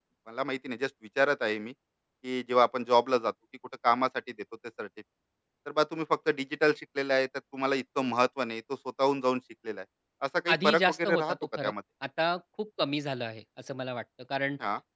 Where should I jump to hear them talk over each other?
10.5 s

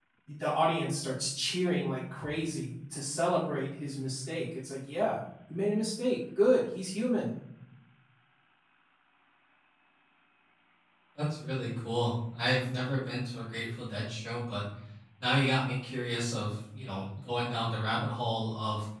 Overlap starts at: none

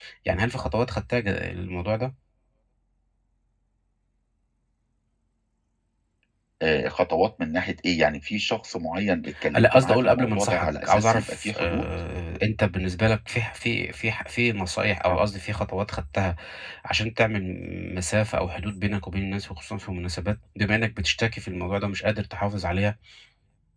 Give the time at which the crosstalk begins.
9.4 s

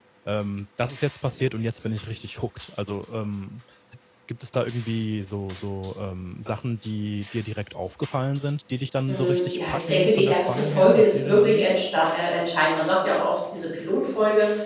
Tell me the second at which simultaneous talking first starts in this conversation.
9.1 s

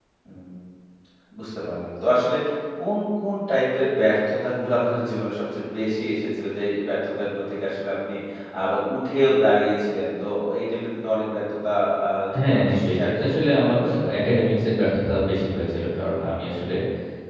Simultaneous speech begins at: 12.3 s

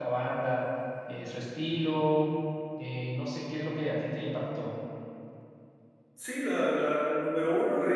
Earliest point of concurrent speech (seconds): none

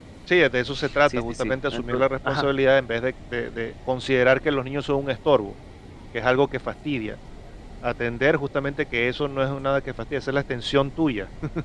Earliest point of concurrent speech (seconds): 1.1 s

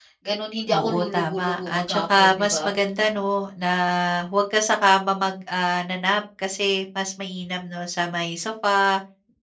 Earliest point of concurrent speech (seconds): 0.7 s

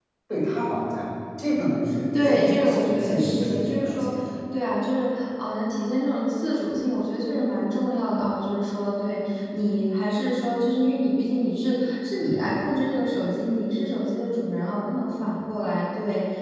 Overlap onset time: 2.1 s

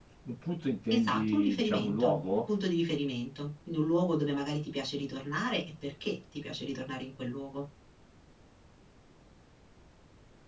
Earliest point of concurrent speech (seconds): 0.9 s

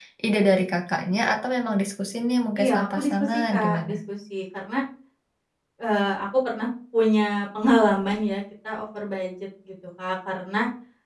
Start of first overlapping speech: 2.5 s

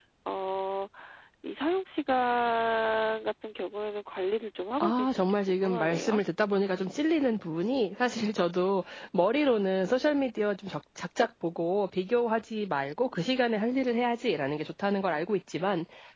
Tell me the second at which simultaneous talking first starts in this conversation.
4.8 s

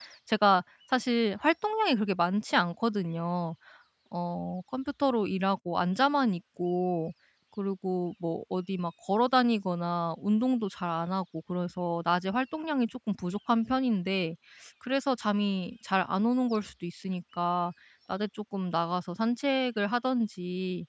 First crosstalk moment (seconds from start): none

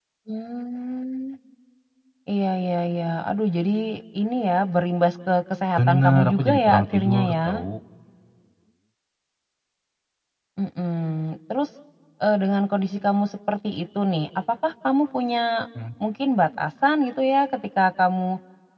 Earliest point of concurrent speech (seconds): 5.8 s

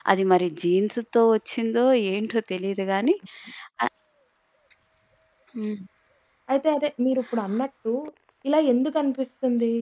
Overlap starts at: none

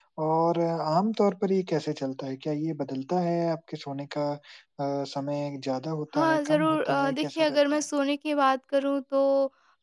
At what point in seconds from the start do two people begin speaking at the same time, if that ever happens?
6.1 s

